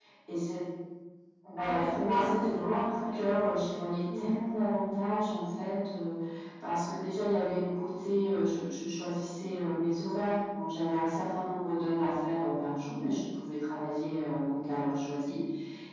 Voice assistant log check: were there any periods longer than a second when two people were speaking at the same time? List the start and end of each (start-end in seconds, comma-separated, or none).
1.6-3.6